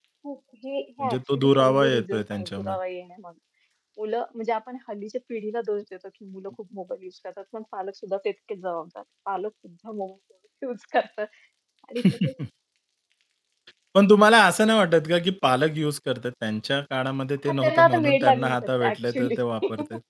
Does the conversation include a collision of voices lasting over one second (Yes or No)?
Yes